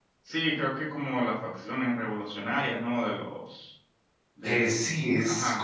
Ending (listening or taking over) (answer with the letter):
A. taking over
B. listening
A